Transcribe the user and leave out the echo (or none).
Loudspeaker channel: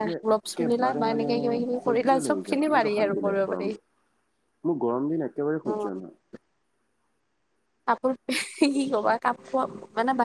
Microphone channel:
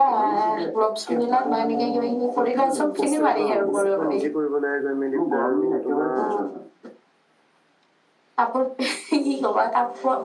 হোষ্টেলত অ বস্তু সোপা নিজে কৰিব লাগে গৈ মেলি পেলে! আৰু তোমাৰ